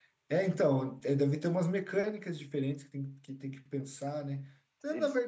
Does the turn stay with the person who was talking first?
Yes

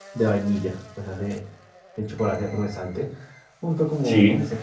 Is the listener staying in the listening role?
Yes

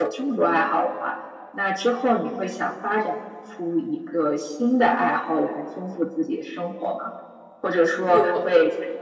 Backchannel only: Yes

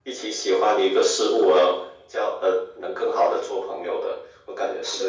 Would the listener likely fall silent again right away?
No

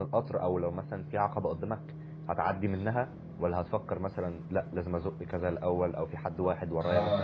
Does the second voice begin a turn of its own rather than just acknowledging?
Yes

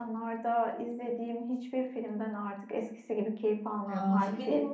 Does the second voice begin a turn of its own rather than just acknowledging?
Yes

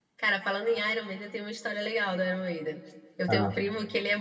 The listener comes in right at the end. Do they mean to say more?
No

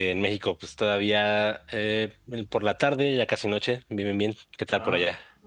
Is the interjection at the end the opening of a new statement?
Yes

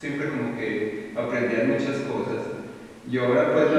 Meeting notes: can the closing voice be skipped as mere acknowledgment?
Yes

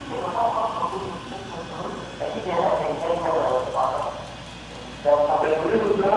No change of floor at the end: No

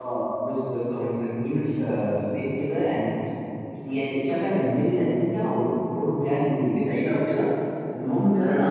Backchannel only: Yes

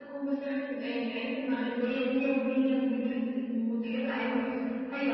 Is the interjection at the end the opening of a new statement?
Yes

